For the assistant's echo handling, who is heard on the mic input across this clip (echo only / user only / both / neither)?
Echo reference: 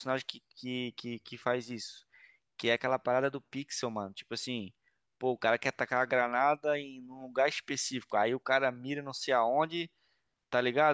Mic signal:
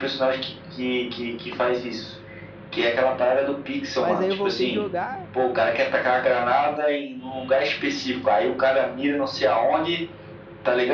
both